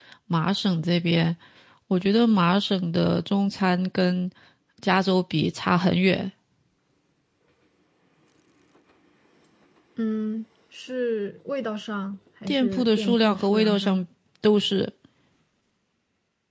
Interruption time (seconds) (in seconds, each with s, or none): 12.5 s